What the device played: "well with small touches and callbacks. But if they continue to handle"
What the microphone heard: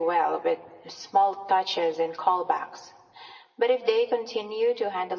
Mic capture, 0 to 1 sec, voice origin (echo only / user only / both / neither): echo only